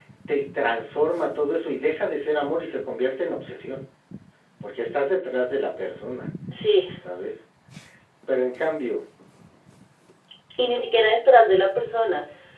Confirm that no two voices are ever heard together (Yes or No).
Yes